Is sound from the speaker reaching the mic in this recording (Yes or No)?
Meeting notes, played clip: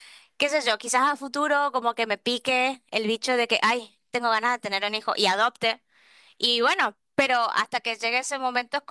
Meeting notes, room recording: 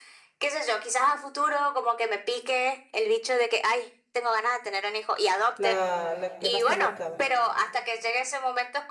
Yes